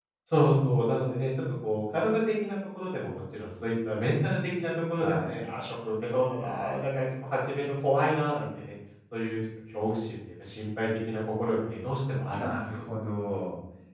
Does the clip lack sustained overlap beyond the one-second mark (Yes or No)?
Yes